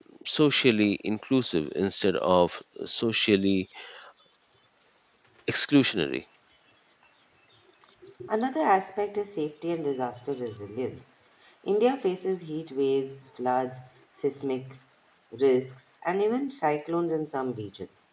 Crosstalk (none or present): none